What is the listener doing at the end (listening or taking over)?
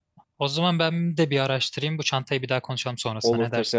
taking over